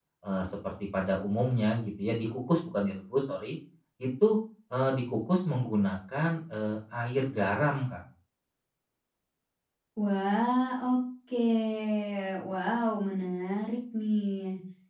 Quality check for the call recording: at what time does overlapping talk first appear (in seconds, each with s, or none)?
none